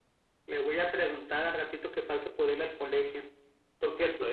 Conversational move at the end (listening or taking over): listening